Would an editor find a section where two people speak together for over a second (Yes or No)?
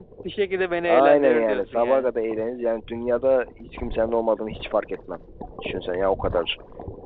Yes